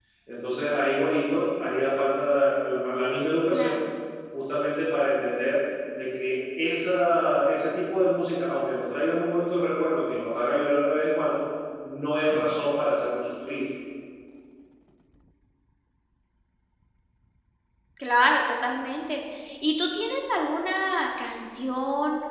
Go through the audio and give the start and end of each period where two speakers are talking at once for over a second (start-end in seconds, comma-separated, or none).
none